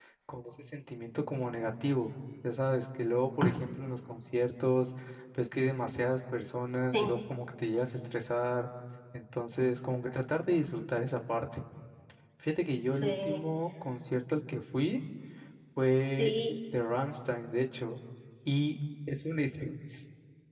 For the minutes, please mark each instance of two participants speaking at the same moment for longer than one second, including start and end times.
none

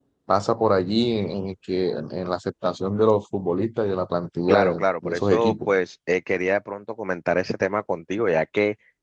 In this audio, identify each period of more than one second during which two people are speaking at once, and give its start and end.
4.5-5.7

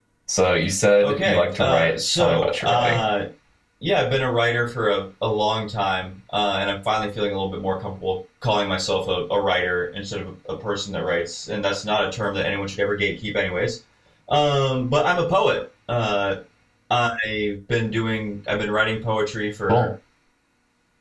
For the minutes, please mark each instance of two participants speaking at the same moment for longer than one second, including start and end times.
1.0-3.0

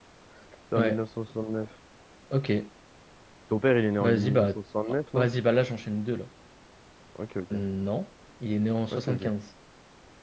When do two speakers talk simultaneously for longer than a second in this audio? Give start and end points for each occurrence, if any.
none

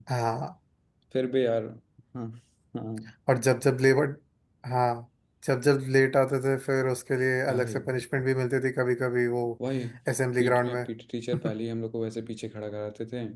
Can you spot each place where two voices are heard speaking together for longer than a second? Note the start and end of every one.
none

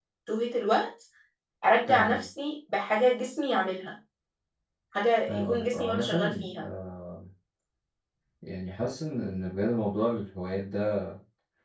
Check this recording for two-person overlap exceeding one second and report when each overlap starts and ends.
5.3-6.6

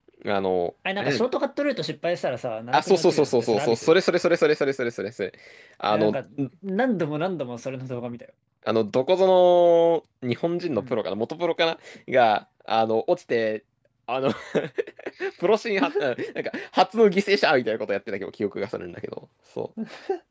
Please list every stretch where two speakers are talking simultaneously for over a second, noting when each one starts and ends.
2.7-3.9

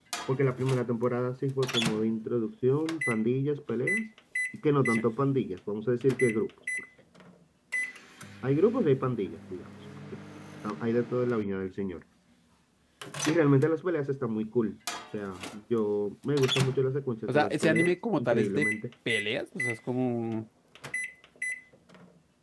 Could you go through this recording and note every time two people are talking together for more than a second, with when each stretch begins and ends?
17.3-18.7

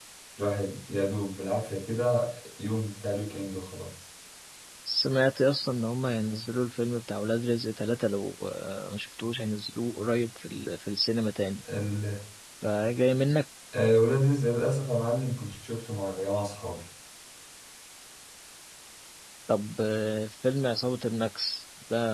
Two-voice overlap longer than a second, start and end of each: none

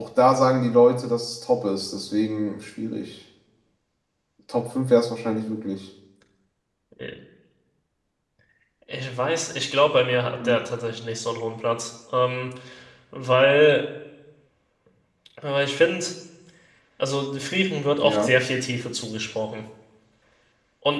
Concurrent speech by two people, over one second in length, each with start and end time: none

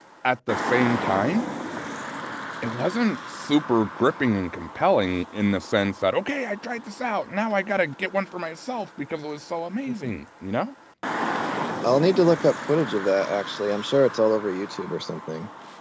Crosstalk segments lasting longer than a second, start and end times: none

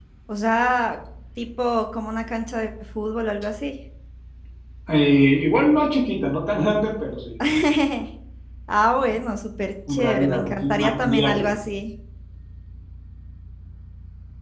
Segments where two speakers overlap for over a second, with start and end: 9.9-11.4

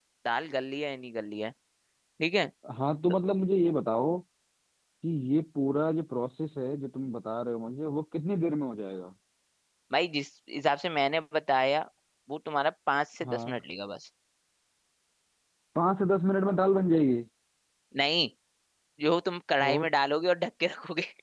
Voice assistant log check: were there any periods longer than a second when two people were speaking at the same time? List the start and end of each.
none

